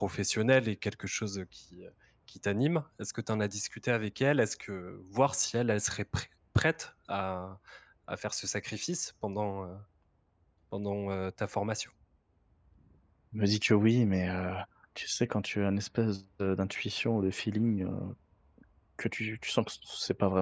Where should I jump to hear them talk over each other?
none

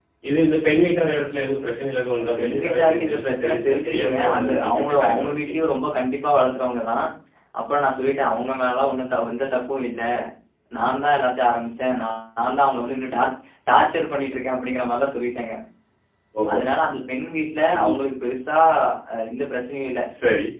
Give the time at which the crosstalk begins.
2.2 s

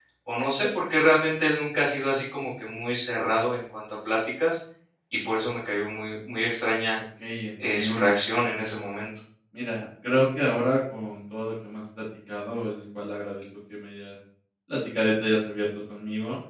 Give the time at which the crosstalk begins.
7.7 s

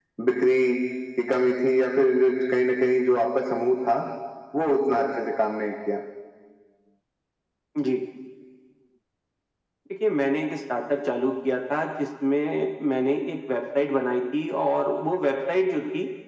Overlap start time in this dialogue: none

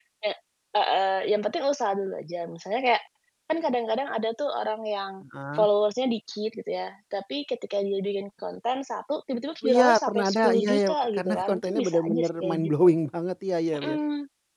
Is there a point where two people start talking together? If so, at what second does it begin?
9.6 s

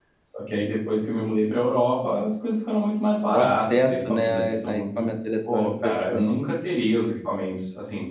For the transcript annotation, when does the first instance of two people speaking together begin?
3.3 s

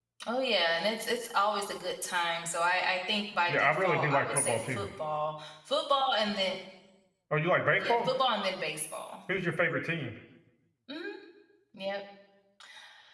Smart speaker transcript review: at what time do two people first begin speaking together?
3.5 s

